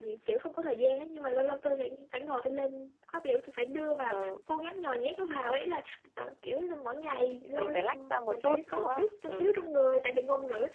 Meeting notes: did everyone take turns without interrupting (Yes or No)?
No